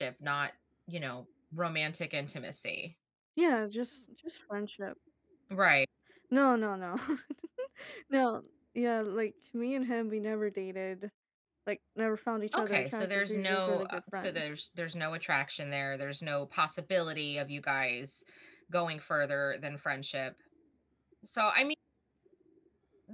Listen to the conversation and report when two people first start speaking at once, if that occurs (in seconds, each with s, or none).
12.5 s